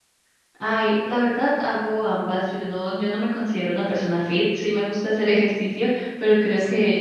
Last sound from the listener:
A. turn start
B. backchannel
B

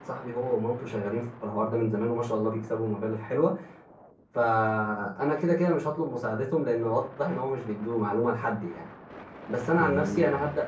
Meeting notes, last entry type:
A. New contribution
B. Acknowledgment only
B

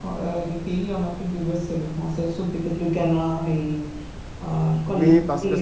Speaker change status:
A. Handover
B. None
A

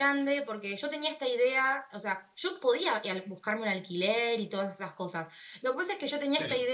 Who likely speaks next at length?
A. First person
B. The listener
A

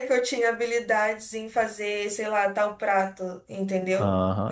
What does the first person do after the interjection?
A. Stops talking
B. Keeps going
A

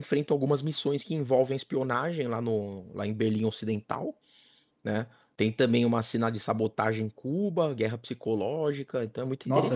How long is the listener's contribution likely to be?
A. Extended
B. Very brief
A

